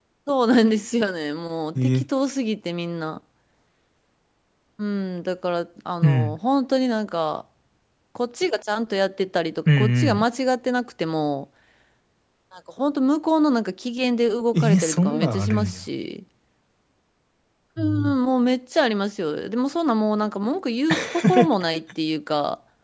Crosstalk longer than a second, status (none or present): present